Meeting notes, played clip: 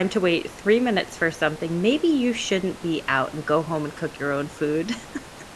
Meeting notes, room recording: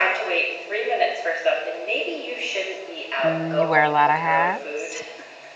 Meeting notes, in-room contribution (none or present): present